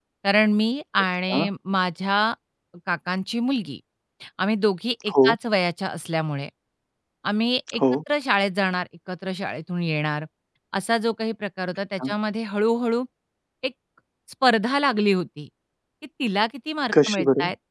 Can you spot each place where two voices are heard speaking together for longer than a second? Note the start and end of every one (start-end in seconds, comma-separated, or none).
none